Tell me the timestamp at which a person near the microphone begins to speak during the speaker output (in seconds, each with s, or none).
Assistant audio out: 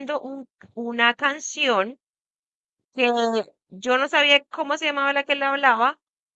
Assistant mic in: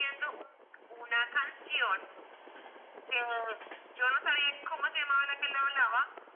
none